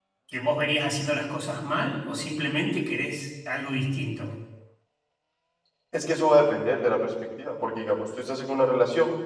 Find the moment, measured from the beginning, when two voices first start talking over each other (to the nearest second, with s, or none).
none